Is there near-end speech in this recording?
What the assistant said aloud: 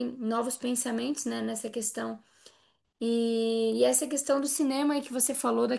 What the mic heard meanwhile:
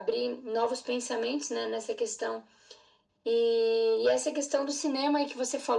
No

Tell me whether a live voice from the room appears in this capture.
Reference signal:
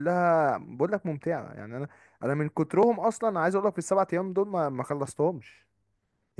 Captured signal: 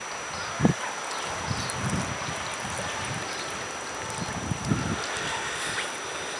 No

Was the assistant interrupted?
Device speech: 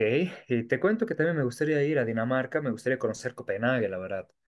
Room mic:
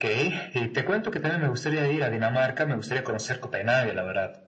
No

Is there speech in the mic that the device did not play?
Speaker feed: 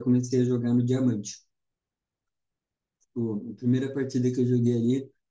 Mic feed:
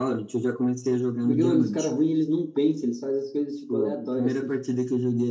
Yes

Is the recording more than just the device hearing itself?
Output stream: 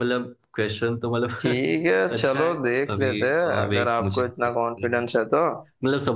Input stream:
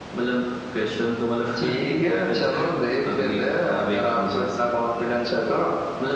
No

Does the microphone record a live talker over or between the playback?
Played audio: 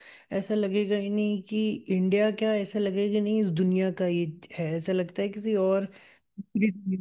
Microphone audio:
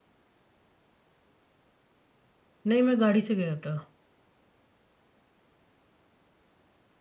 Yes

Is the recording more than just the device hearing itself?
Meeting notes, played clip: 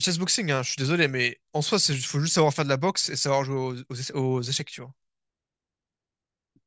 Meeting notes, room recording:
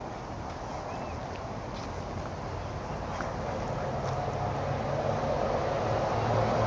No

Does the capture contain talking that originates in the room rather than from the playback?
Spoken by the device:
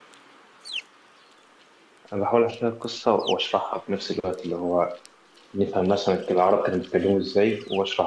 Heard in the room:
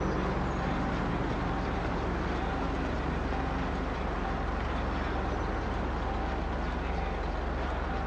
No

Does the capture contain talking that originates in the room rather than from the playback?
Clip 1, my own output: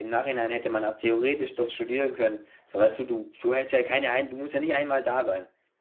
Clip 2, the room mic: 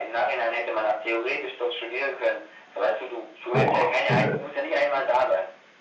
Yes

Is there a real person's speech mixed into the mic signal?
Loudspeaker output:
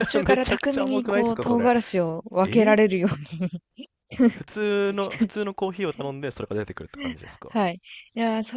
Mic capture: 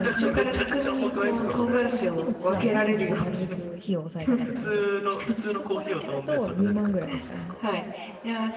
Yes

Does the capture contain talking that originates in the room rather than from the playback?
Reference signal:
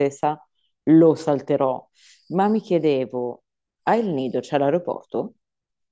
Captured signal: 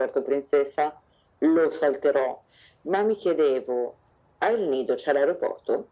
No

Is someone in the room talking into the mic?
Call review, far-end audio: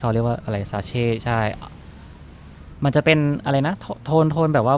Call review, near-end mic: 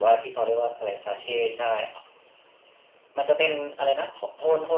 No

